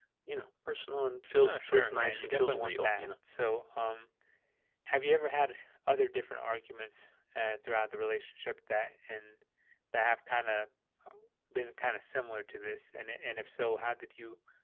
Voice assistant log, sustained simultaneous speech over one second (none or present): present